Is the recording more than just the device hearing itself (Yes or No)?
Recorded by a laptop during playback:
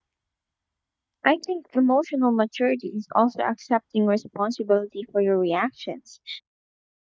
Yes